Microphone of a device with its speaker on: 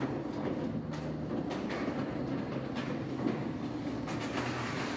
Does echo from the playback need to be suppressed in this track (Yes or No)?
No